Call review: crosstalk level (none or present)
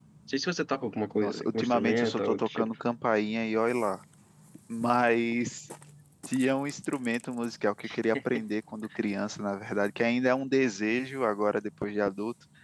present